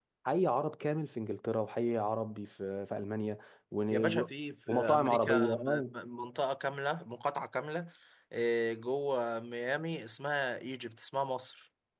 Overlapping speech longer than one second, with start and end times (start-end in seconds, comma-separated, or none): 4.7-5.9